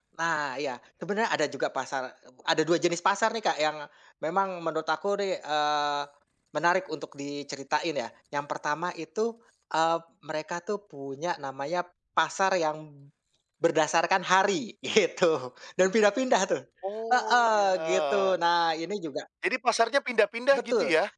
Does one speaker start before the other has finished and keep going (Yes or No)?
Yes